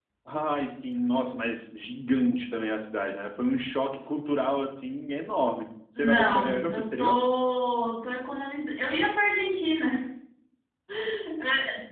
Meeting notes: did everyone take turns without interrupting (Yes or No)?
No